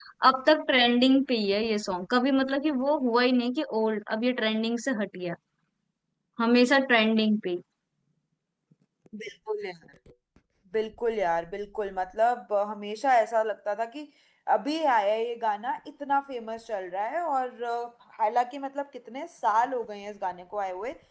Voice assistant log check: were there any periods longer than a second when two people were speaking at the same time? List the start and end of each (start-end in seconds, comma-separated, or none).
none